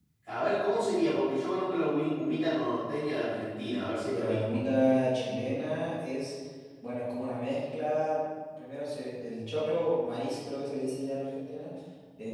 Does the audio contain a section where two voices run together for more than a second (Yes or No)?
No